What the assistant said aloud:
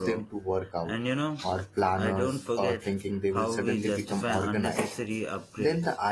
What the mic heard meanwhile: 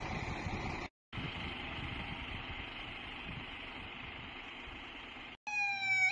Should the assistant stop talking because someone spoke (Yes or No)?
No